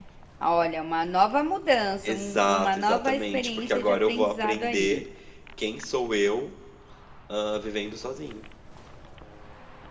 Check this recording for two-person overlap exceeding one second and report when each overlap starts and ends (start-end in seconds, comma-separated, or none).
2.0-5.0